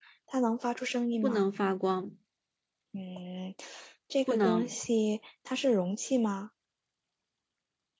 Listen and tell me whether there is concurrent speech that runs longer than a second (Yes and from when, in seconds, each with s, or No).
No